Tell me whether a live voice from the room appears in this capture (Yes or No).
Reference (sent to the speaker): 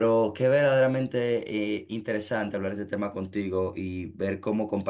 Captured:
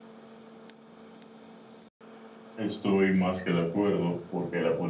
Yes